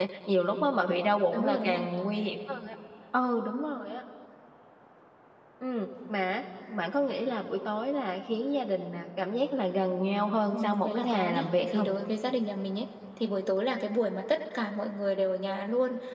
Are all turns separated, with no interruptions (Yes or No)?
No